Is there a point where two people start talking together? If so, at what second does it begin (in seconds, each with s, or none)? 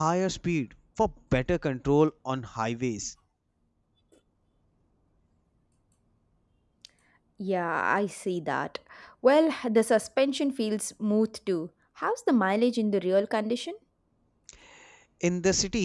none